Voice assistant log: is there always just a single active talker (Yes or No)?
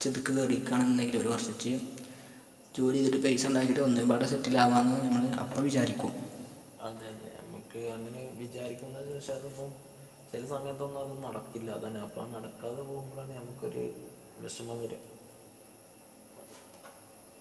Yes